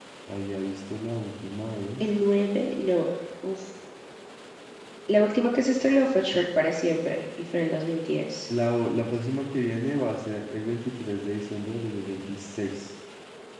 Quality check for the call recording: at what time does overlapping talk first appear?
none

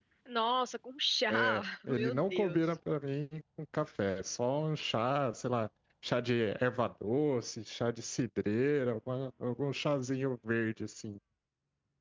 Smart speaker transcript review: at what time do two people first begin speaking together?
1 s

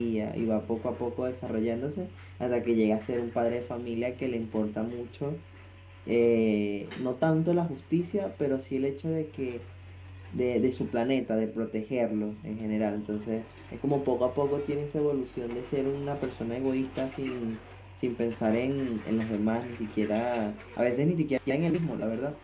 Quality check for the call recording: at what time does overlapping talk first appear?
none

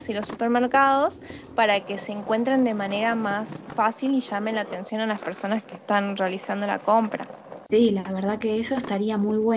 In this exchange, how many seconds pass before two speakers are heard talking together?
none

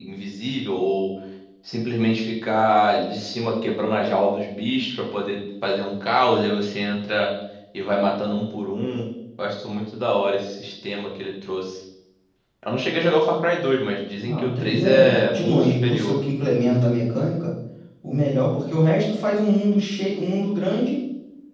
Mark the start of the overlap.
14 s

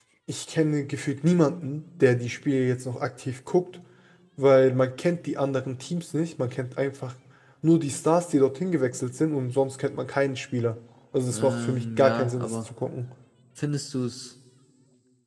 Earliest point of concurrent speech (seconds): 11 s

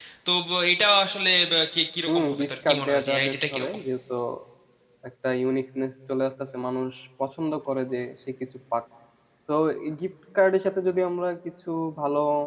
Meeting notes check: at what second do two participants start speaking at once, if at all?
2 s

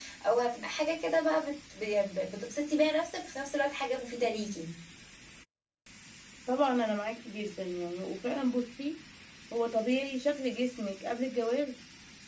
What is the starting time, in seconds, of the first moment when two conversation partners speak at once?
none

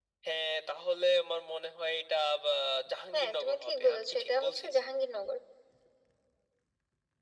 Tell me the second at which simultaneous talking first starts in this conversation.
3 s

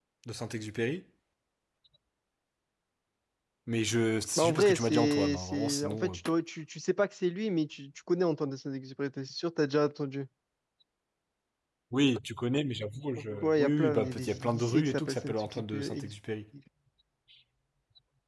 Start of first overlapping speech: 4 s

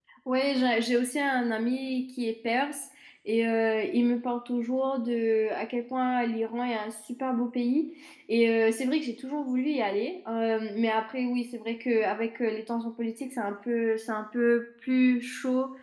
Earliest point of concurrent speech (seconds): none

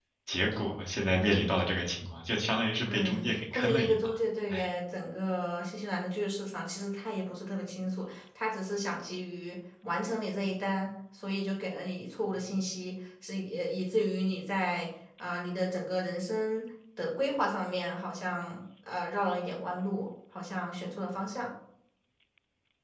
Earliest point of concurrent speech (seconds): 3 s

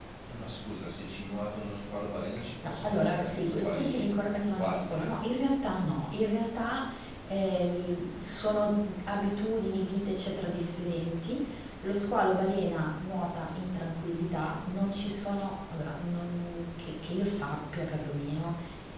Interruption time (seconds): 3 s

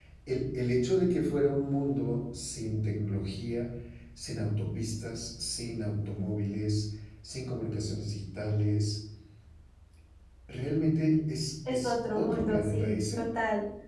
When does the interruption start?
12 s

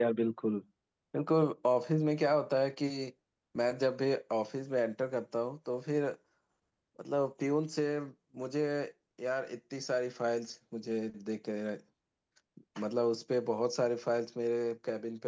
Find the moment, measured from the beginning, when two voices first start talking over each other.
none

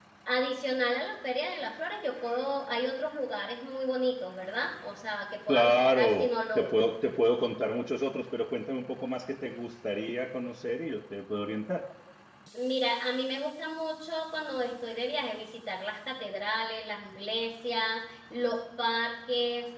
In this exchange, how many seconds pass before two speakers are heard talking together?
5 s

